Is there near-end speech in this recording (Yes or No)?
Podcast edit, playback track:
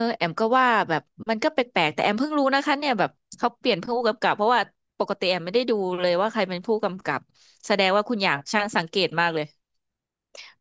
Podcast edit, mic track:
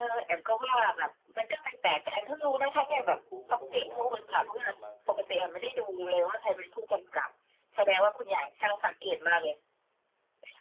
Yes